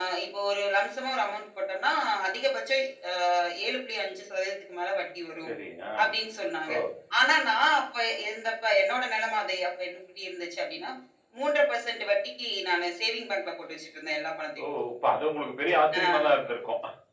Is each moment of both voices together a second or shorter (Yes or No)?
Yes